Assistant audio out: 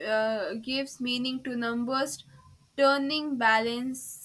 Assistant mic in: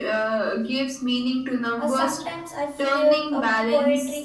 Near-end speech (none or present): present